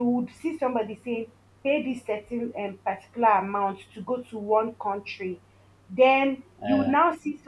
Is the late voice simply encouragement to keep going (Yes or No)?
Yes